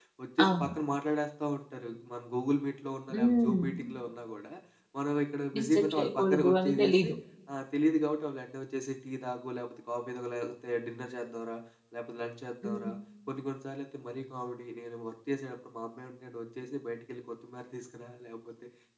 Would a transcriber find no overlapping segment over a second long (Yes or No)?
No